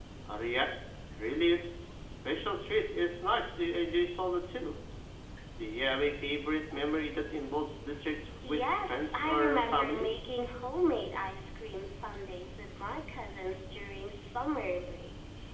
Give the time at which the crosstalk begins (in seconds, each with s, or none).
8.4 s